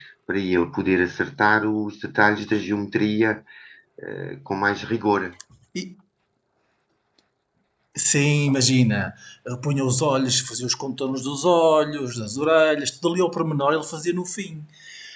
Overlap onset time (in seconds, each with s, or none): none